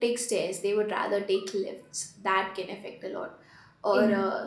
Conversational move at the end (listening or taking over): listening